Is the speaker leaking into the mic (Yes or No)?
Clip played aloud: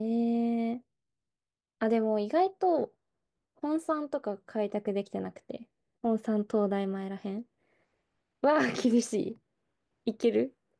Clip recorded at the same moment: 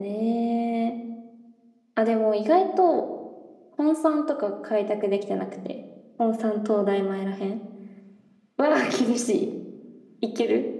Yes